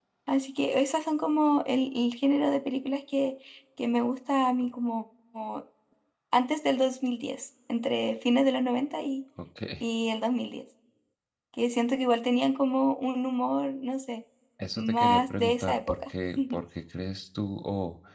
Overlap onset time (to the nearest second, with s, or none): 15 s